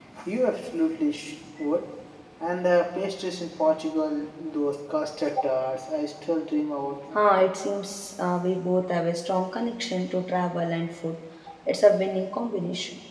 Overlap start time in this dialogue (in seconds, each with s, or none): none